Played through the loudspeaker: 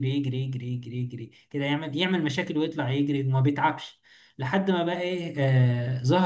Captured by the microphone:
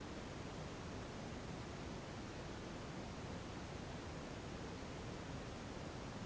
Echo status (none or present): none